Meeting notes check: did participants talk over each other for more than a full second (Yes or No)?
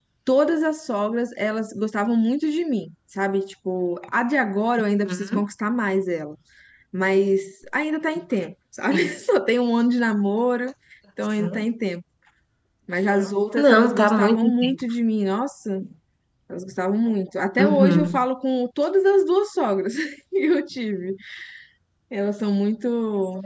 Yes